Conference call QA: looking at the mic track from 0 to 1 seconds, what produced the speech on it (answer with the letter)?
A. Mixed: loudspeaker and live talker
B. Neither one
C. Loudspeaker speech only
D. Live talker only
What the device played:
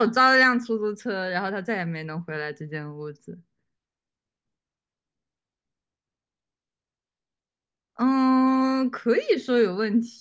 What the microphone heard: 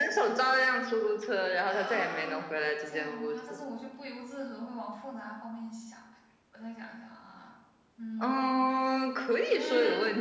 C